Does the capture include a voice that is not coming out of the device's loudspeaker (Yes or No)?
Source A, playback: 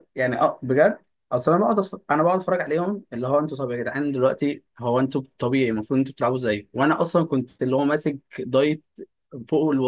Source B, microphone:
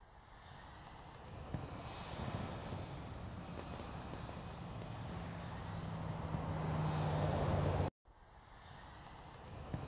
No